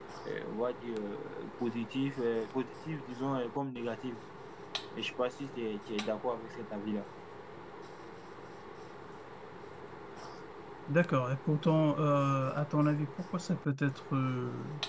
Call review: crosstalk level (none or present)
none